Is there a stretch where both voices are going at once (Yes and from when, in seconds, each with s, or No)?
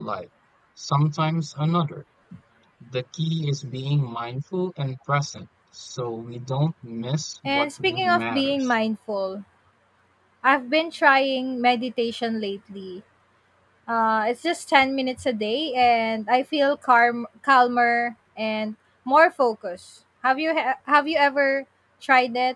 Yes, from 7.4 s